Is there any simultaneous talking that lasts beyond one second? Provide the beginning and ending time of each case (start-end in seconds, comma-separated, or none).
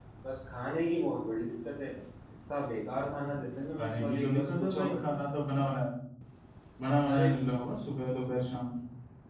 3.8-5.0